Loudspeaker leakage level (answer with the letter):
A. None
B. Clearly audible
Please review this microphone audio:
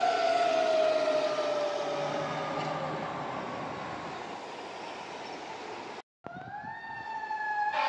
A